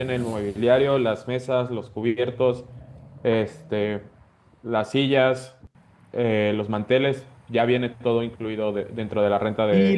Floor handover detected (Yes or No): Yes